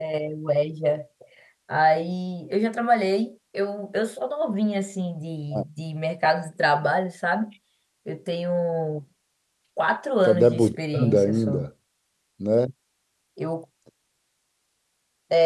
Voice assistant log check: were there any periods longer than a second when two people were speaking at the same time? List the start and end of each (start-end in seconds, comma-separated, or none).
10.2-11.7